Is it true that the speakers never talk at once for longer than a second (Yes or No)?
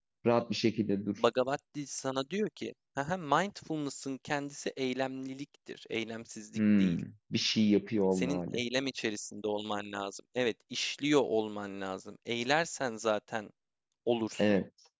Yes